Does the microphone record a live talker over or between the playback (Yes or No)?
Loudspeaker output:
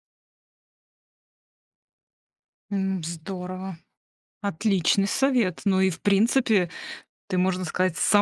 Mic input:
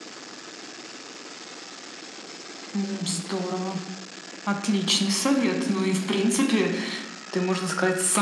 No